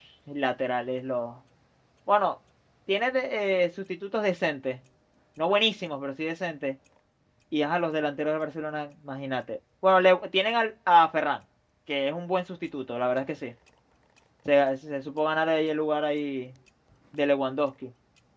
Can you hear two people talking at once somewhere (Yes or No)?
No